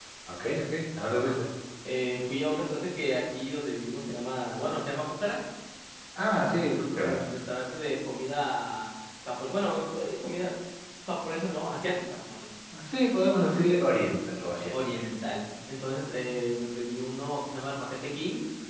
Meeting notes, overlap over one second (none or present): none